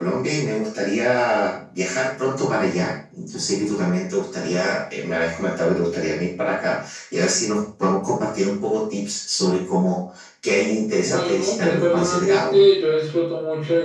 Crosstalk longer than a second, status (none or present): present